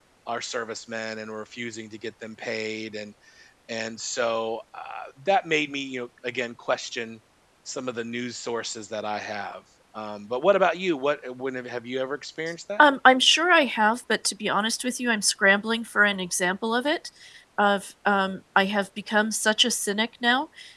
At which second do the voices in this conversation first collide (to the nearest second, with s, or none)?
none